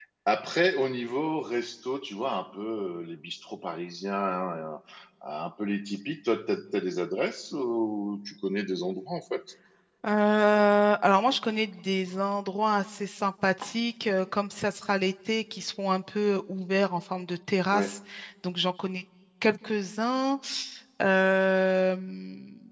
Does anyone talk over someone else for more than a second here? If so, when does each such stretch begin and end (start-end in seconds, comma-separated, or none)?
none